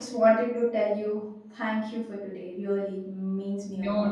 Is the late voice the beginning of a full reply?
Yes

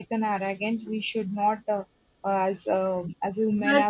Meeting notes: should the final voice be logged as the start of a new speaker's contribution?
Yes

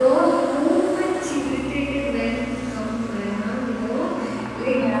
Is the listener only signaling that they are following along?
Yes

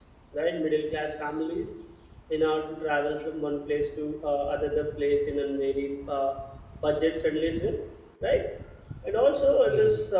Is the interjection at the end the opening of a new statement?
No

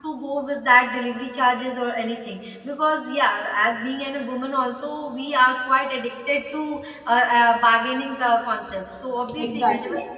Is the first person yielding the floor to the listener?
Yes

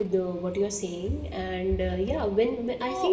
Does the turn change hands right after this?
No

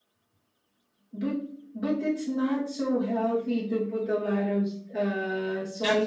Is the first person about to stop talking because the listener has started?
Yes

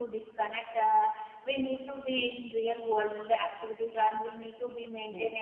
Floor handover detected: No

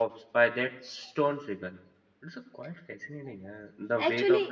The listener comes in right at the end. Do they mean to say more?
Yes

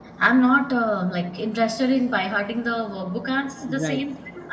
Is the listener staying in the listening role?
Yes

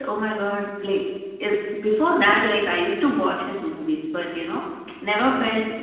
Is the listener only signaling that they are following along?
Yes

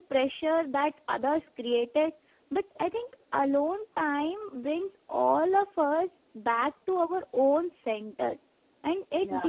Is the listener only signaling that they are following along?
Yes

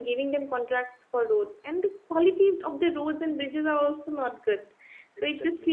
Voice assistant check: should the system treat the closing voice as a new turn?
No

